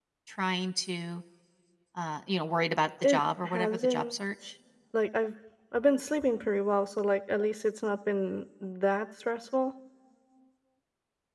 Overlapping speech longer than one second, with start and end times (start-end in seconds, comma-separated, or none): 3.0-4.5